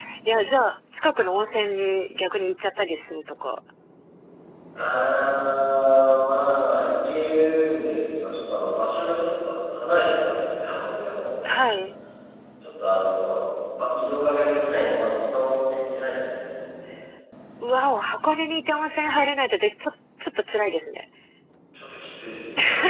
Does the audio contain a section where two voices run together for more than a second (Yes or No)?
No